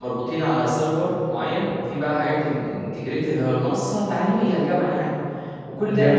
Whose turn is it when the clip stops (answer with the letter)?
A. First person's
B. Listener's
A